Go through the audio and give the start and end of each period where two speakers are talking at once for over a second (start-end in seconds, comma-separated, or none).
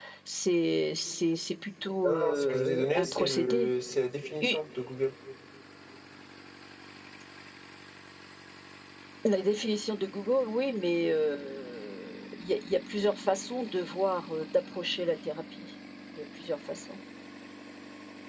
2.0-3.7